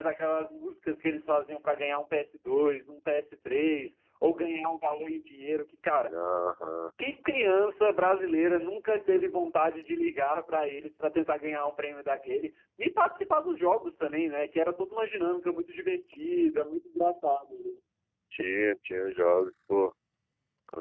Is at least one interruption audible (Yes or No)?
No